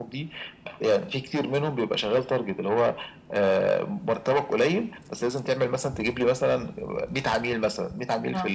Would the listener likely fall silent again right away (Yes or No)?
Yes